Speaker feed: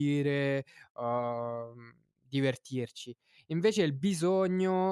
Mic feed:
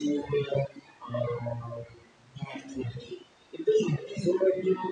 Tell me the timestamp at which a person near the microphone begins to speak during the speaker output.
none

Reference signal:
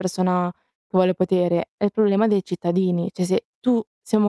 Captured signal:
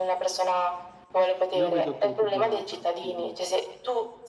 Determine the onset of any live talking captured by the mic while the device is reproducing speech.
1.6 s

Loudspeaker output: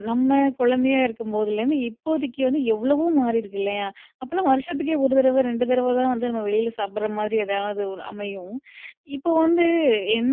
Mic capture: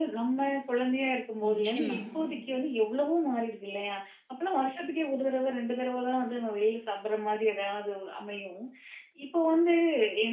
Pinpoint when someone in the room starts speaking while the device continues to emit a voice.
1.5 s

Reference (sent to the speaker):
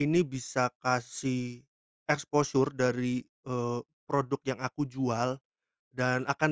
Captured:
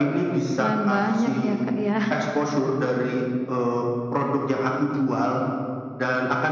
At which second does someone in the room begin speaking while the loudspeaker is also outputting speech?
0.5 s

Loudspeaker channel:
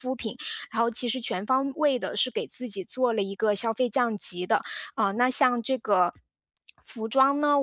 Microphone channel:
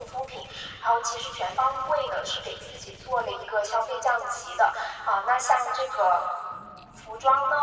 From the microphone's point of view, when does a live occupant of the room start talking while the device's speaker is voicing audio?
none

